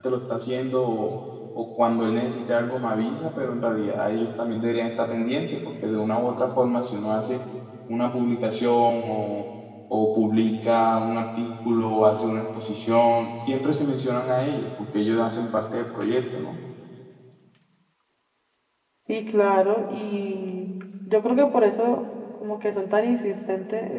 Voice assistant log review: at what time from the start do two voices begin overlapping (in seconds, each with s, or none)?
none